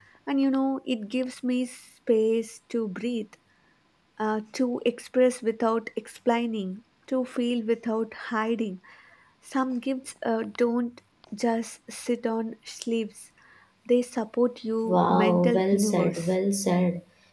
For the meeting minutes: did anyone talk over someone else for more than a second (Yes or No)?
Yes